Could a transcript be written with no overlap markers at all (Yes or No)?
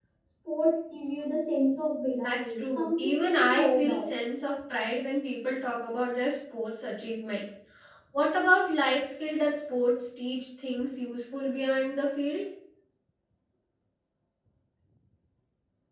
No